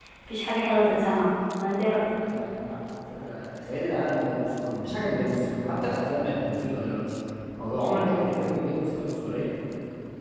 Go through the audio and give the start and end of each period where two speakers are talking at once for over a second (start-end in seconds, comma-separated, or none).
none